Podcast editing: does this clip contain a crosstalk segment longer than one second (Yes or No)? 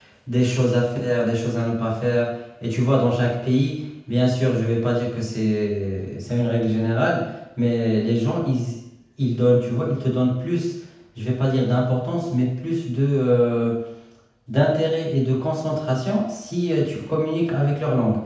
No